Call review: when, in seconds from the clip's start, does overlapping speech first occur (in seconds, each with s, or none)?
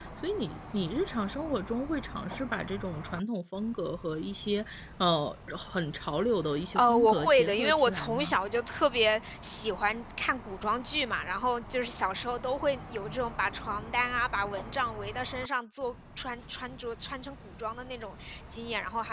6.8 s